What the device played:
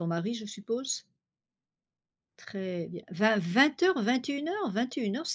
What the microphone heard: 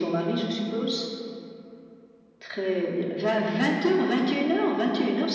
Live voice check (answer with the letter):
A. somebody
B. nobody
B